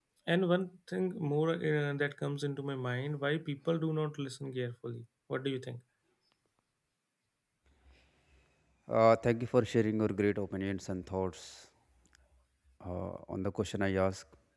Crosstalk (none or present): none